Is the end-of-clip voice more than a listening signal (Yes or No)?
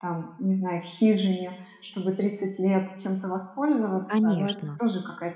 No